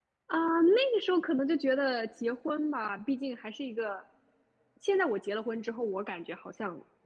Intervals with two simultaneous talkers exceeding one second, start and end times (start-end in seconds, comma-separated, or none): none